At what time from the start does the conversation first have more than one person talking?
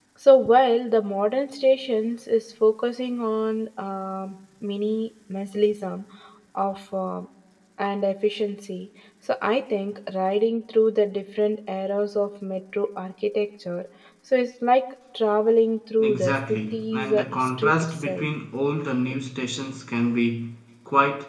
16.0 s

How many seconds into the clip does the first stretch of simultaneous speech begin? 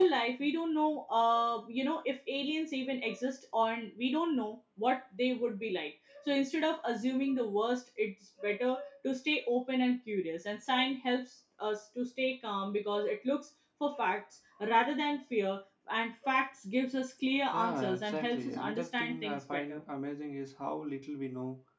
17.5 s

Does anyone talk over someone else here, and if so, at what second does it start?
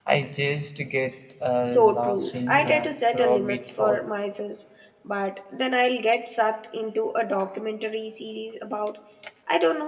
1.6 s

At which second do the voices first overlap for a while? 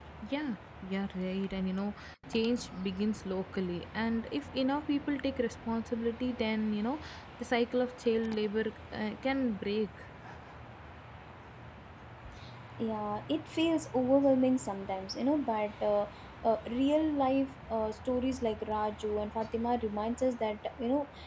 none

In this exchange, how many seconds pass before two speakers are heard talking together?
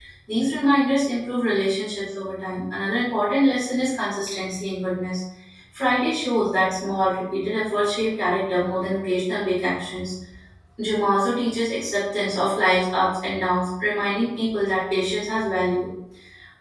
none

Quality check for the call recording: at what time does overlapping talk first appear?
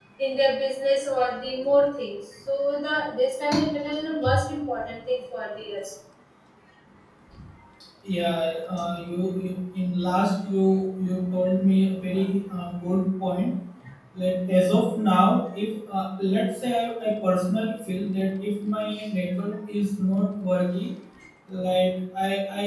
none

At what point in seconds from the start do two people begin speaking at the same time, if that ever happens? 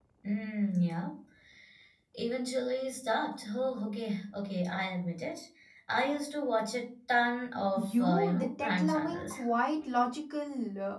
7.8 s

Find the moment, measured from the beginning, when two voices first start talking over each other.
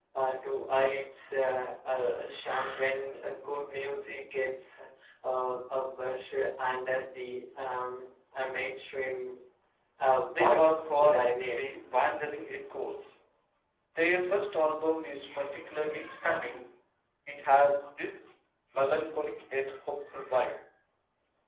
10.3 s

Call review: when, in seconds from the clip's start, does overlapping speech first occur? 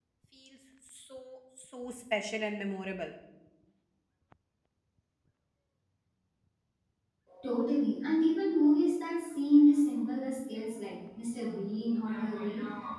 none

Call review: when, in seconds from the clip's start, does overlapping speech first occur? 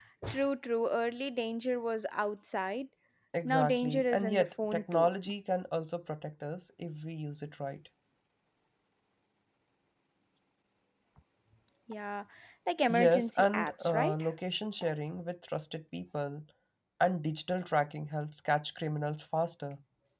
3.4 s

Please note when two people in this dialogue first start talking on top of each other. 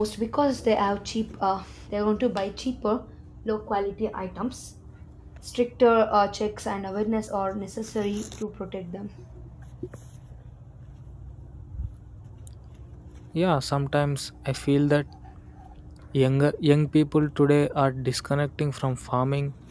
none

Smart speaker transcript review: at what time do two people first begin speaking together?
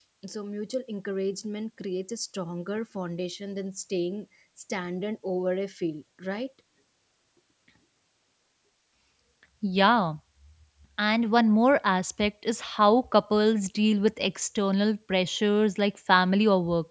none

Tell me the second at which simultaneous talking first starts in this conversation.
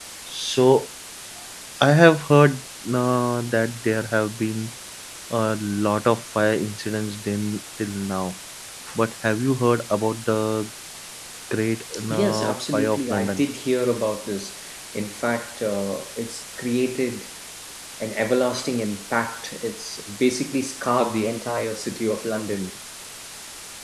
12.1 s

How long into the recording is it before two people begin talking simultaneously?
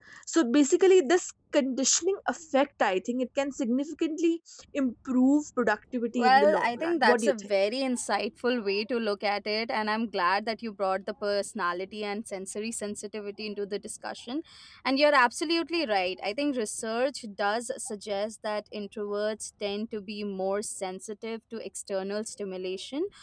6.1 s

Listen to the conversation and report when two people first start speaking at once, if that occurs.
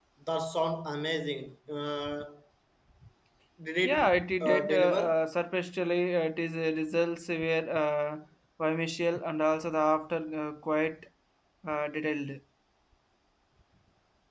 3.8 s

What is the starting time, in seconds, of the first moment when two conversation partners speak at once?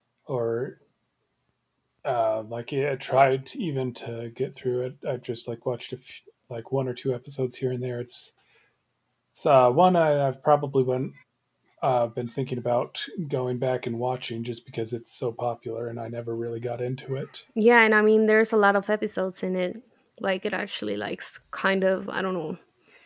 none

